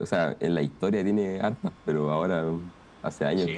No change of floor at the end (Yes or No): No